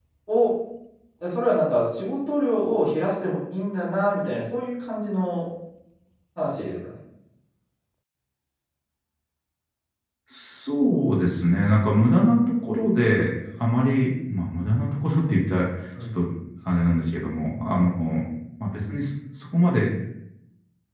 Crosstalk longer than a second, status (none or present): none